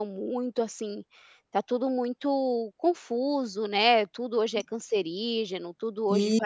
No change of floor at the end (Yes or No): Yes